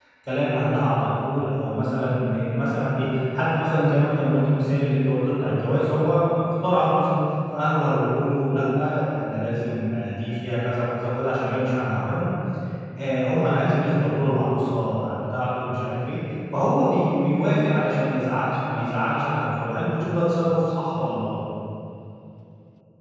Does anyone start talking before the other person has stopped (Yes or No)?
No